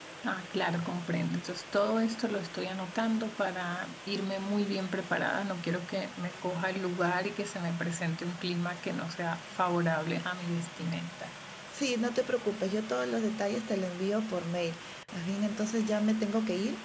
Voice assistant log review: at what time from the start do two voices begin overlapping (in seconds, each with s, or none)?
none